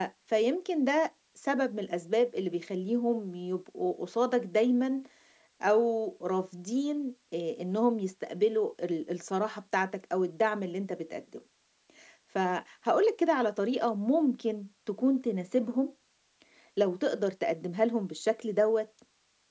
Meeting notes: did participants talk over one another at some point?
No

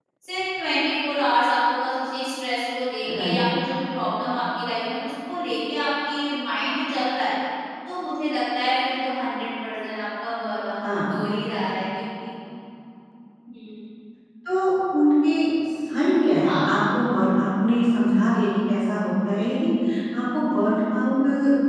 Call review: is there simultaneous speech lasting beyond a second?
No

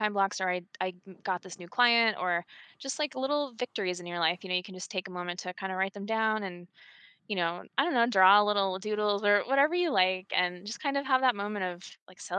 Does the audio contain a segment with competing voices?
No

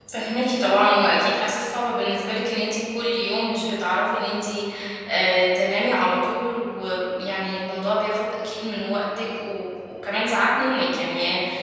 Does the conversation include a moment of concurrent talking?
No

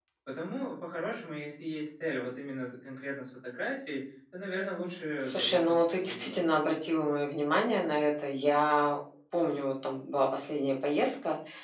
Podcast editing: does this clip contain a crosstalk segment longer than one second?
Yes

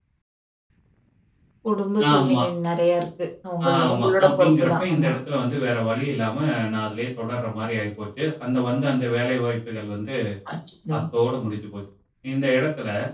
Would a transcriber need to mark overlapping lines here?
Yes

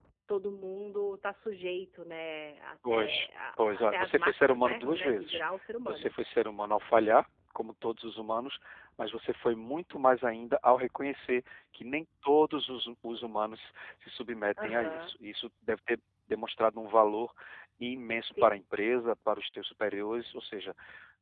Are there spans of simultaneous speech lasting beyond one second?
Yes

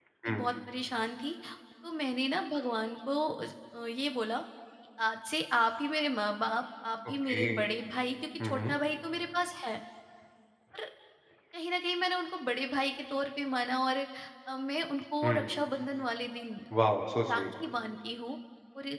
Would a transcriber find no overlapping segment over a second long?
Yes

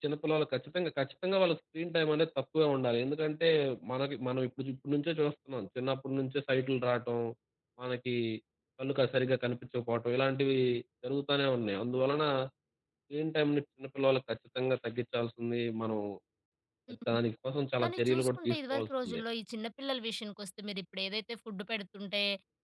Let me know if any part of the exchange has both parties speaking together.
Yes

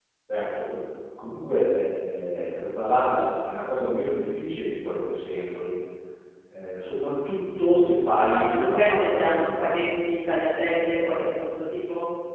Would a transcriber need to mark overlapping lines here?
Yes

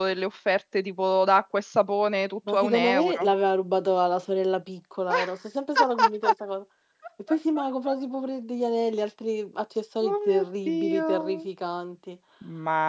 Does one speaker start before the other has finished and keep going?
Yes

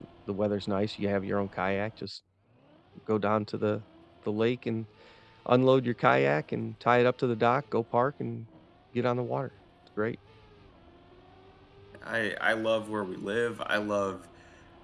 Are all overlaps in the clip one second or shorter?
Yes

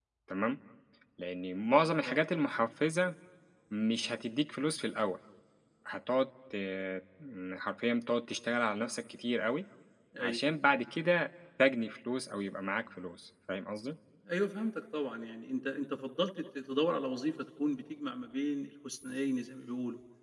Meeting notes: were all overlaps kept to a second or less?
Yes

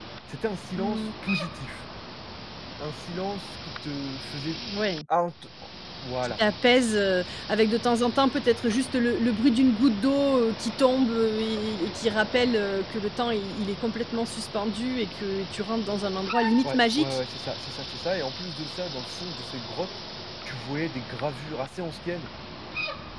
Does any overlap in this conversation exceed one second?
No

